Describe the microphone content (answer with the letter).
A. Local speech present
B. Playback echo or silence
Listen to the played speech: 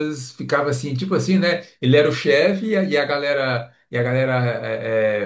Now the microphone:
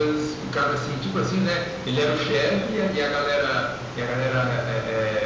B